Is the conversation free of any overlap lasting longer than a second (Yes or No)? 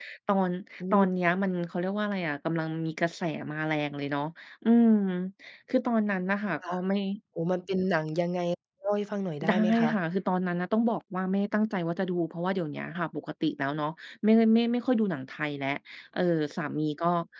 Yes